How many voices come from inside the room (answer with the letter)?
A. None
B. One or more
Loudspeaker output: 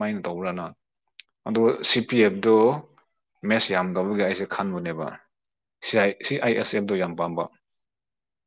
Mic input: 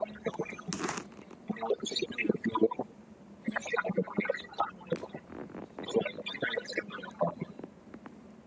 A